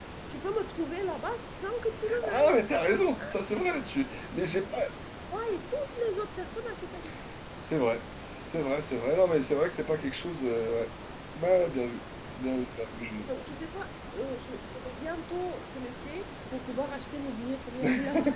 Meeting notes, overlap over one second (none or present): none